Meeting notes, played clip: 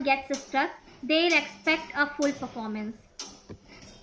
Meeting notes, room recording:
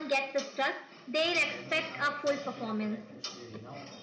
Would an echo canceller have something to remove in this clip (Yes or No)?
Yes